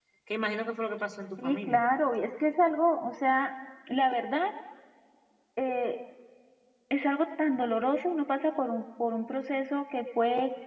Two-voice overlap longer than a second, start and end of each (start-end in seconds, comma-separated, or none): none